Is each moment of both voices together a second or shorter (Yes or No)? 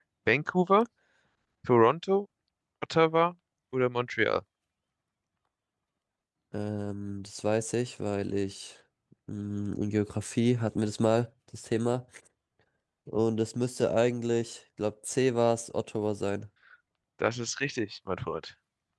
Yes